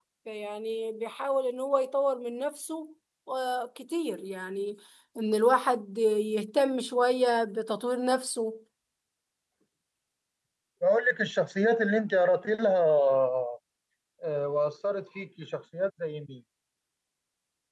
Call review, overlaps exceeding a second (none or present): none